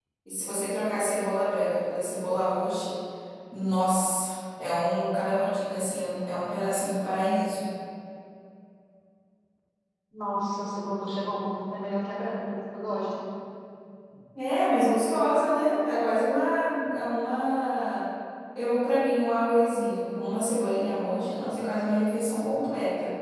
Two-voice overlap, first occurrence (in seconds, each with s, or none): none